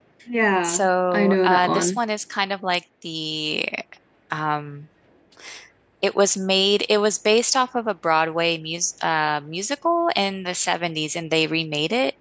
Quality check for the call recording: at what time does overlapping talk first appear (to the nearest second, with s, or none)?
1 s